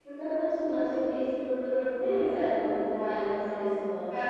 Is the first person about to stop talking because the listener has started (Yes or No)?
Yes